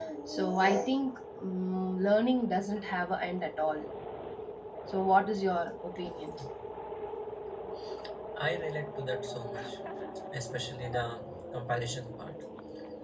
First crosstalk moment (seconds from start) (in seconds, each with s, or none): none